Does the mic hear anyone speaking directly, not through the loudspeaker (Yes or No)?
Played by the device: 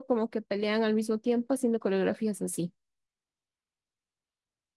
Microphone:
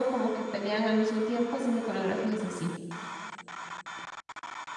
No